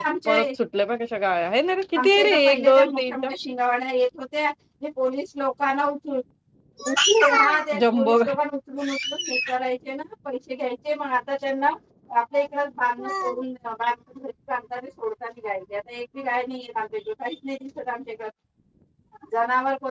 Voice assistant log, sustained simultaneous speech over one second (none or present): present